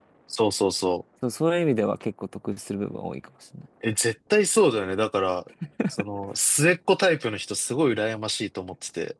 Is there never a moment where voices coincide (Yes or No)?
Yes